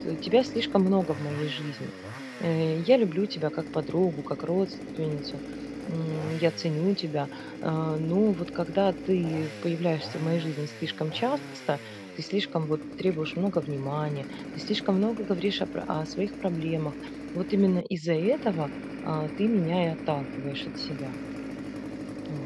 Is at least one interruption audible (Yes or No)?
No